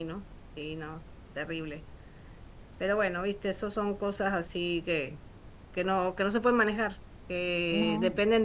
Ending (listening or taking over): listening